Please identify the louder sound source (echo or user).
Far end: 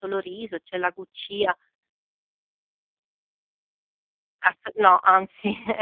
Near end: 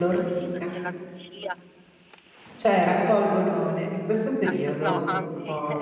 user